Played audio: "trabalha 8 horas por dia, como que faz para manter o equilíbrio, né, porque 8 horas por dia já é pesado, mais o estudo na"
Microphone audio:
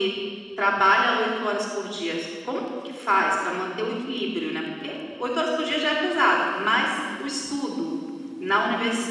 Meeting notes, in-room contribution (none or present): none